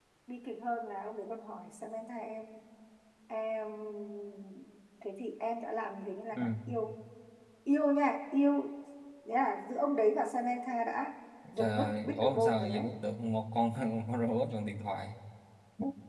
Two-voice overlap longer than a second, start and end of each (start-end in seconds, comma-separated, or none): 11.5-12.8